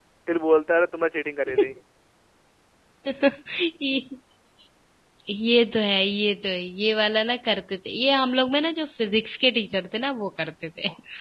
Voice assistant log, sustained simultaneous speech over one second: none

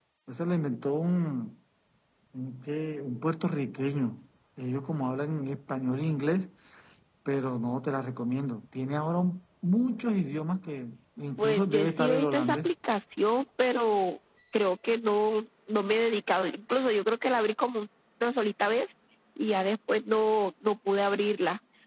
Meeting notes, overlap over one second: present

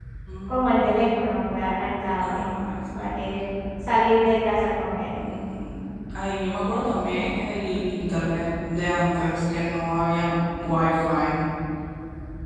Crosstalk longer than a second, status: none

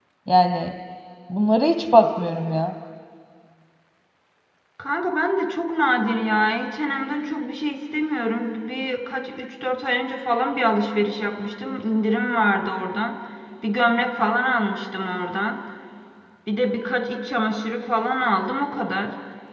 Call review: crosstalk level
none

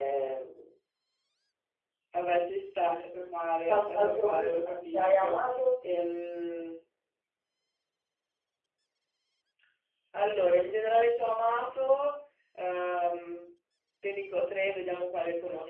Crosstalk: present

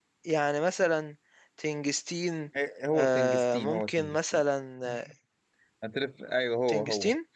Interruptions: present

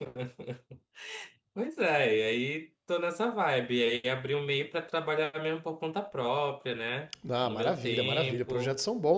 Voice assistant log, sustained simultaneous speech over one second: present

